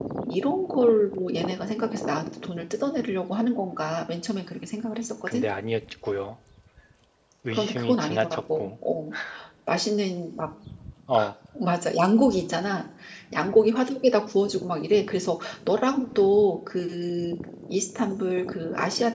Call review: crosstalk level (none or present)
present